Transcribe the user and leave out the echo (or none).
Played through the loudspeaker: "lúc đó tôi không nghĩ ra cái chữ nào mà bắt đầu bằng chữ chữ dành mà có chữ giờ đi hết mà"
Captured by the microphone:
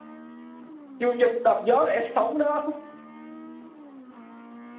chương trình đạp gió lẽ sống đó